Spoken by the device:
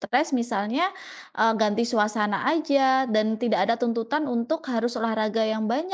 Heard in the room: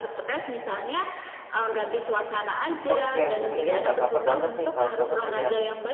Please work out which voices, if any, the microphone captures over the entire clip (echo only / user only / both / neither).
both